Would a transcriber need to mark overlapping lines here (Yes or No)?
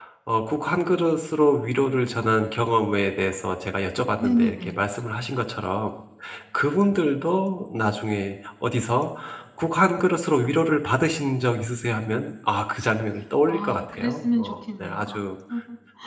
Yes